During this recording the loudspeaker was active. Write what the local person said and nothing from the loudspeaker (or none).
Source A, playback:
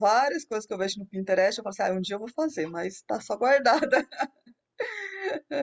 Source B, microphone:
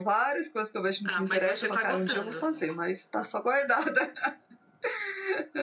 Ah, mas você tá gostando.